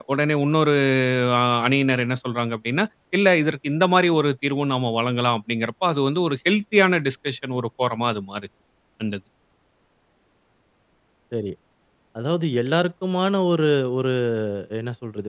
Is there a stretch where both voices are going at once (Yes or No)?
No